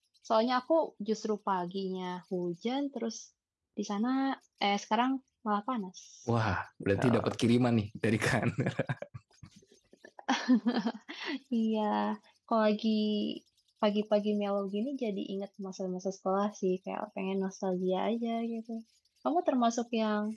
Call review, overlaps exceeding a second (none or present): none